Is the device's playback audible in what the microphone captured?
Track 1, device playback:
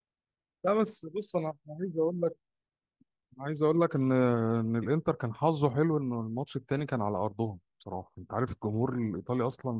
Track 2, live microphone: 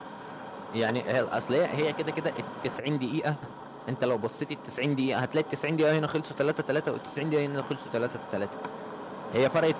No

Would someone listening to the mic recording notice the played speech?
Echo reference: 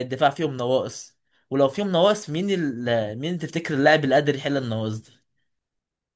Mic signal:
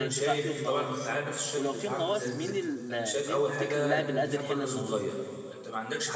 Yes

